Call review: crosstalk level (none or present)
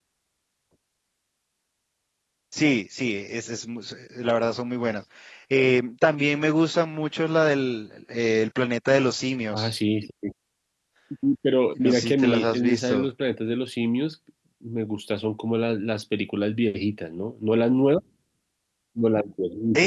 present